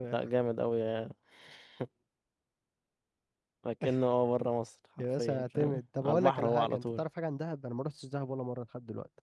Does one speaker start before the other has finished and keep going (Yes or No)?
Yes